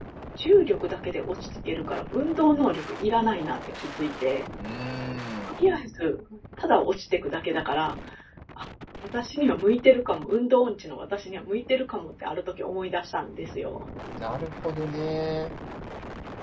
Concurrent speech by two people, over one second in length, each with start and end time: none

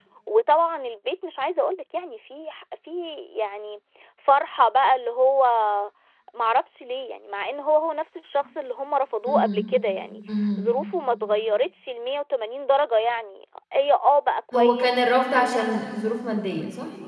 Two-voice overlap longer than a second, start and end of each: 14.5-15.8

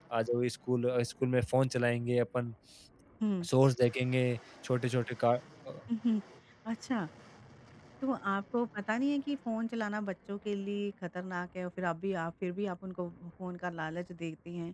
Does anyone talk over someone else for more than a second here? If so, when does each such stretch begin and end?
none

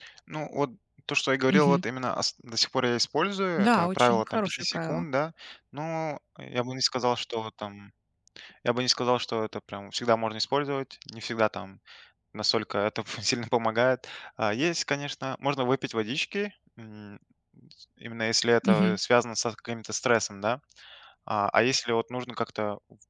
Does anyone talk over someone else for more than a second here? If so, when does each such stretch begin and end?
3.6-5.0

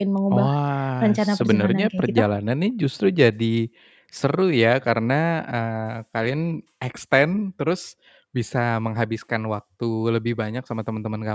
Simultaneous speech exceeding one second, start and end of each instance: 1.0-2.2

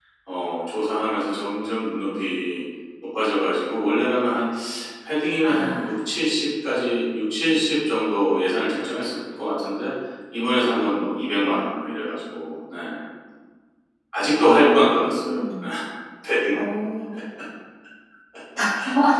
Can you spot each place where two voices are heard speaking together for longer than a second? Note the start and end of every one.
none

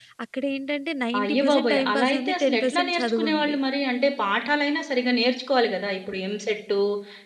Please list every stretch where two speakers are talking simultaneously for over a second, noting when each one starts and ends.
1.2-3.6

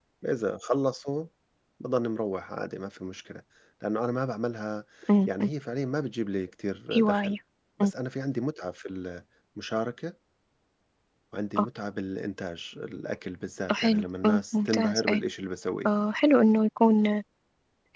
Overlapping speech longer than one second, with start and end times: 13.7-15.2

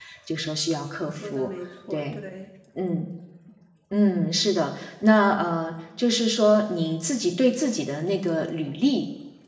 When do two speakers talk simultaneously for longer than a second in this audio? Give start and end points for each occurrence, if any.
none

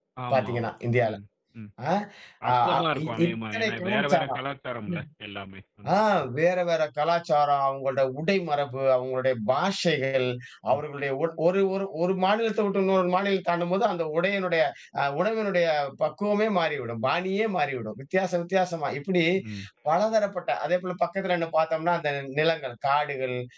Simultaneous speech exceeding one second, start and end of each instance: 2.5-4.4

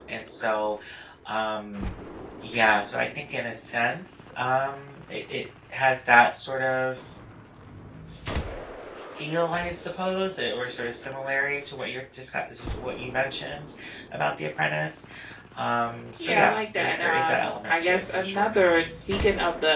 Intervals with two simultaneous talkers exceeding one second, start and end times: 16.2-18.5

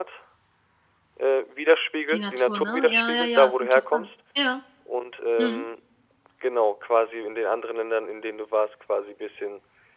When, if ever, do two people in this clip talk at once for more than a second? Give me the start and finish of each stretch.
2.1-4.1

